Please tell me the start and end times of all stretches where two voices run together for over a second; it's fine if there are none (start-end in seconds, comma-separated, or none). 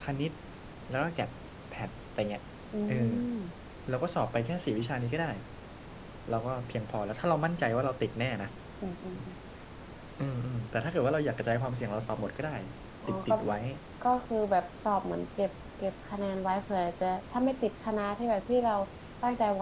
none